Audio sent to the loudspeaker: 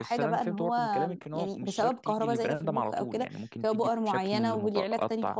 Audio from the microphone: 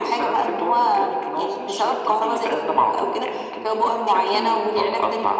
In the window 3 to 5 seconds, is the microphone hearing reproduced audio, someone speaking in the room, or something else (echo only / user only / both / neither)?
echo only